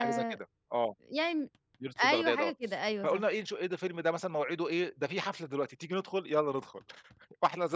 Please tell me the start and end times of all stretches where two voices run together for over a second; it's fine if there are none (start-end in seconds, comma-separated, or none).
none